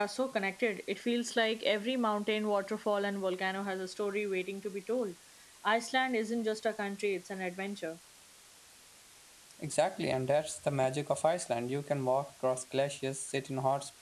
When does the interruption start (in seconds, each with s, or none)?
none